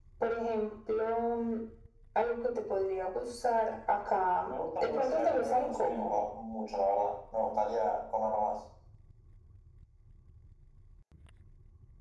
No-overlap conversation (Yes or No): No